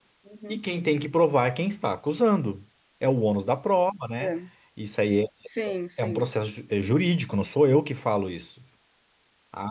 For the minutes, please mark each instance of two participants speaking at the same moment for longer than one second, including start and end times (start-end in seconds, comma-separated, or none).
none